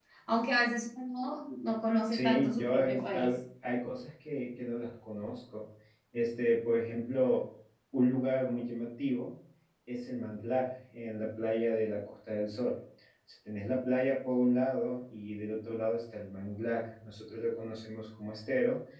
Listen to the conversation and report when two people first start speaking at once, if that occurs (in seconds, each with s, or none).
2.1 s